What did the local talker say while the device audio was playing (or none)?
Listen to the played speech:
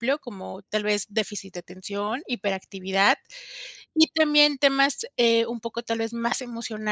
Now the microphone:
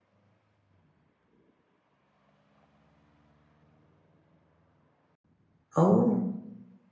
Oh,